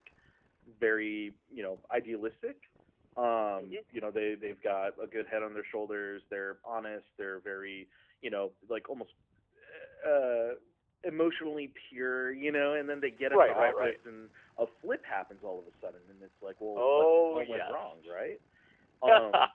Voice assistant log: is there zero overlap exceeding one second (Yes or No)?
No